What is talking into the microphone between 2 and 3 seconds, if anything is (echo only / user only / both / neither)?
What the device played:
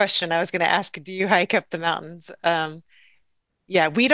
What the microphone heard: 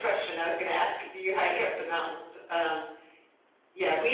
echo only